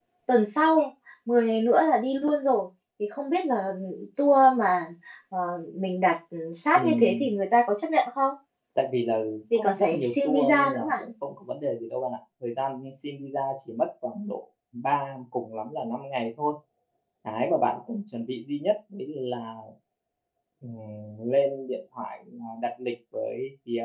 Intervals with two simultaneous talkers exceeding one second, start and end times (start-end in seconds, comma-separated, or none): 9.6-10.9